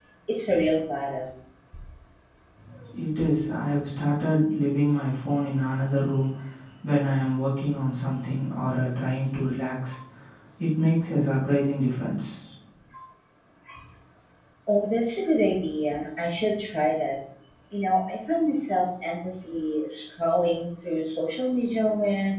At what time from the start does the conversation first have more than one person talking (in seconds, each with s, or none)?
none